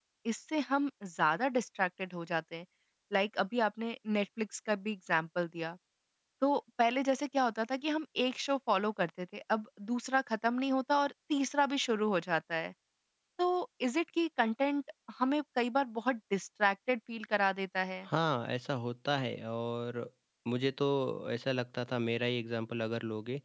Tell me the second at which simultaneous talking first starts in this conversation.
none

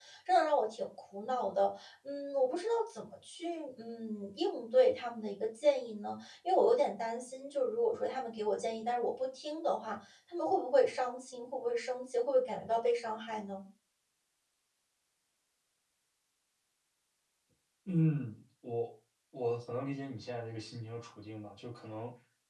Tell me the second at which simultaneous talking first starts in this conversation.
none

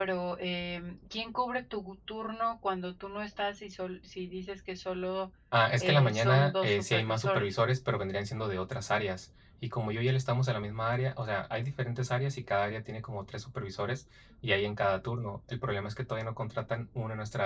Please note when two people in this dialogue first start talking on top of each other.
6 s

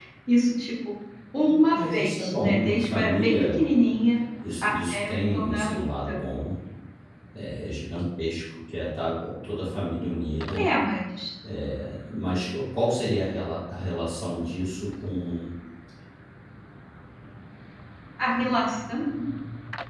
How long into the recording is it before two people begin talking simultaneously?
2 s

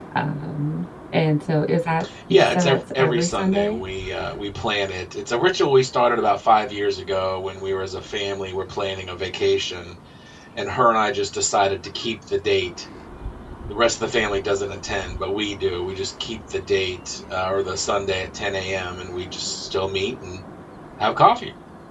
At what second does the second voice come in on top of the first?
2 s

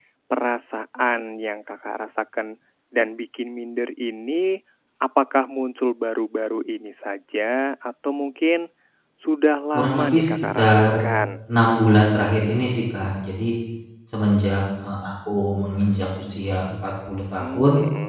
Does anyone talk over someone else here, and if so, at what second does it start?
10 s

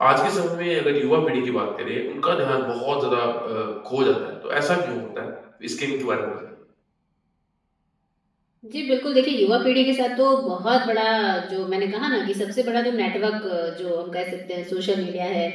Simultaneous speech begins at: none

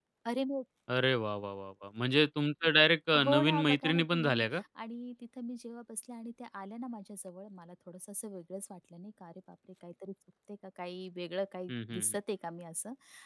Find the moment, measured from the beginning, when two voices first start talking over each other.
3 s

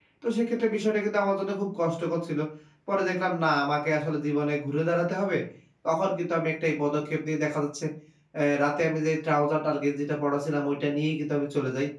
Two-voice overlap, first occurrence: none

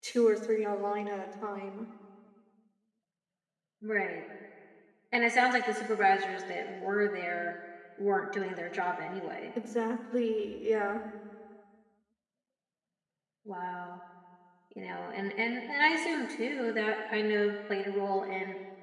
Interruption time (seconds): none

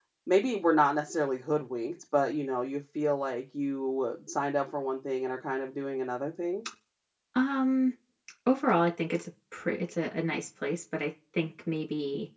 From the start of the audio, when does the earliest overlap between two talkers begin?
none

